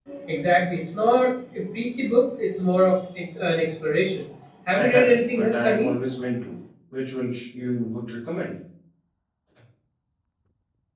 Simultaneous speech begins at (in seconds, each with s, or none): 4.8 s